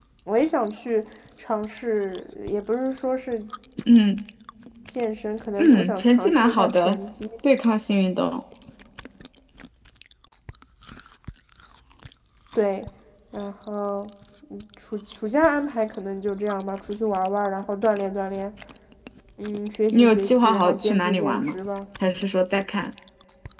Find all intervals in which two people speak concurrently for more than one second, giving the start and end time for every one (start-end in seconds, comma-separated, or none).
5.6-7.0, 19.9-21.5